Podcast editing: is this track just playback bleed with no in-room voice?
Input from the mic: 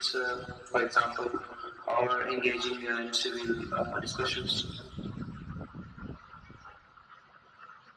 Yes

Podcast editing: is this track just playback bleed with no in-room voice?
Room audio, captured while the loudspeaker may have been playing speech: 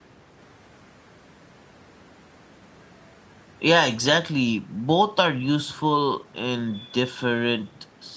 No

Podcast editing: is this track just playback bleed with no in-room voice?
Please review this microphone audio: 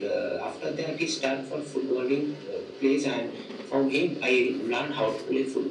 Yes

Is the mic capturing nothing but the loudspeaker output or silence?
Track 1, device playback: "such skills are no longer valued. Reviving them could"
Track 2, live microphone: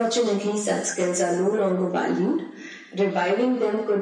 Yes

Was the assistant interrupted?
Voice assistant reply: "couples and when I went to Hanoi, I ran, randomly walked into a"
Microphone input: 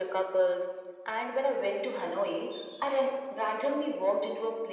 No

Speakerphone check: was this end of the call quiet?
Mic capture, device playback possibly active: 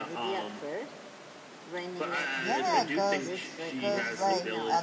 No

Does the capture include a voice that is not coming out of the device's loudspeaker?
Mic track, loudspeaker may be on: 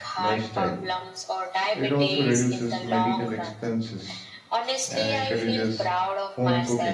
Yes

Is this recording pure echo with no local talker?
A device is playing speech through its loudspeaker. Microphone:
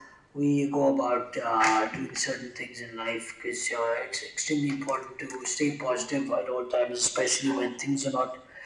Yes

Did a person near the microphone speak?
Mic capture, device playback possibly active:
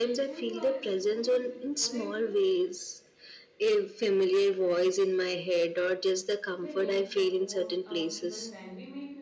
Yes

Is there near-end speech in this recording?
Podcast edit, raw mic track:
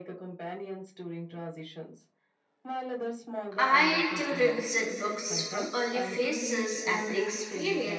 Yes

